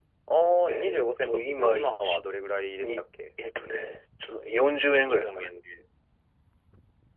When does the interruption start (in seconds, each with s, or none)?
0.7 s